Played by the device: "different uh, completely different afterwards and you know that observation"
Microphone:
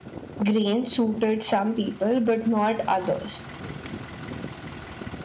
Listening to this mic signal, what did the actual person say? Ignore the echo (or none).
grains suited some people but not others